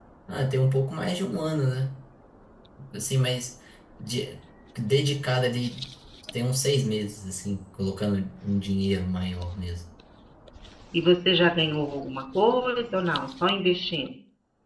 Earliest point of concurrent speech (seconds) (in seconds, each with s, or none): none